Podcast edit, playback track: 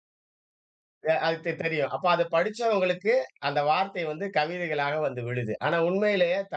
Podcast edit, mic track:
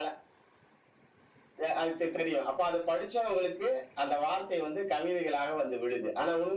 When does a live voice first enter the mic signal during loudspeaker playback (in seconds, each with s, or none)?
none